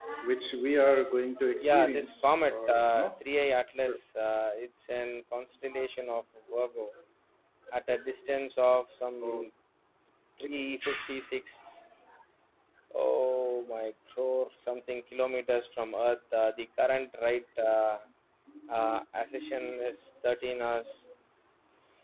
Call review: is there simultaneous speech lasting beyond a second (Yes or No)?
Yes